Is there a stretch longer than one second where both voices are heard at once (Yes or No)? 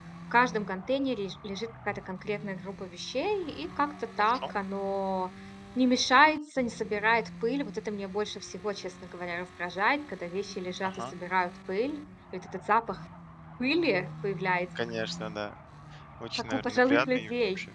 Yes